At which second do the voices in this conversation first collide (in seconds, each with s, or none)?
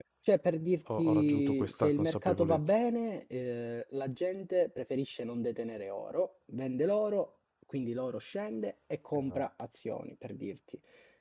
1.0 s